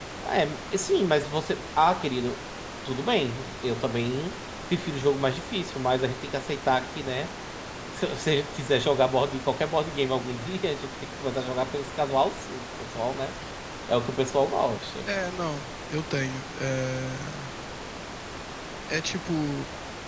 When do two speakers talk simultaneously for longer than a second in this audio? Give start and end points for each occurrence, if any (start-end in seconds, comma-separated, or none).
none